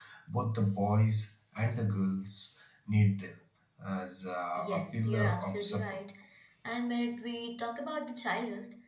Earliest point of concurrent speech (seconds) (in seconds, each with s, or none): 4.6 s